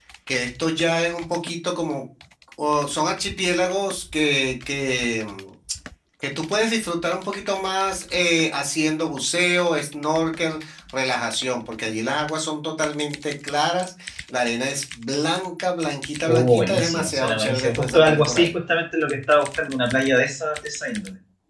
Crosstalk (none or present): present